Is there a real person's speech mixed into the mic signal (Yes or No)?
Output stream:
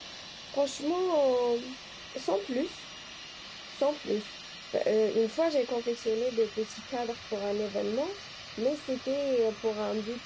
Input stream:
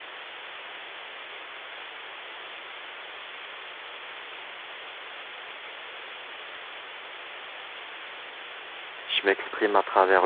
Yes